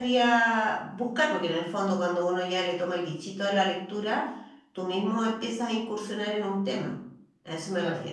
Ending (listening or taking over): taking over